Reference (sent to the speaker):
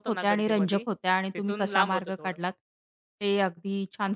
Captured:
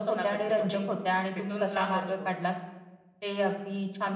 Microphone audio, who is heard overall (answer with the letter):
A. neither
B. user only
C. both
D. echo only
D